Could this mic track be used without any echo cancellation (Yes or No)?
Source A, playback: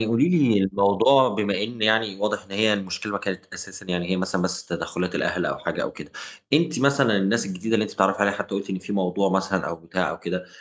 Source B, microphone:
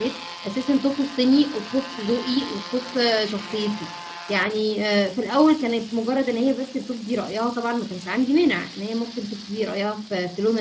Yes